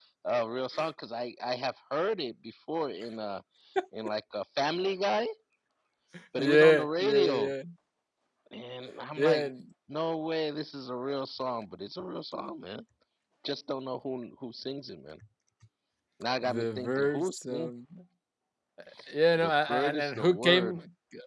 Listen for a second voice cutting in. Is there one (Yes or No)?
Yes